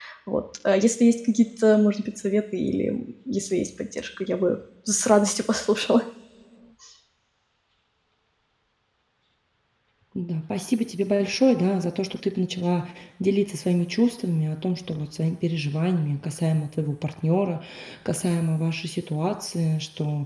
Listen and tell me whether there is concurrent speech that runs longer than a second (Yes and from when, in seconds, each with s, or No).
No